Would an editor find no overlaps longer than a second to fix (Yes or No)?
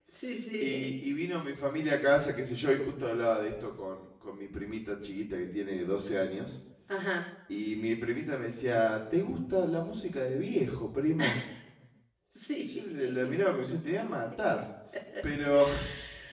Yes